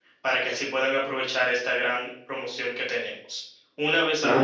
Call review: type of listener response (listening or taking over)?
taking over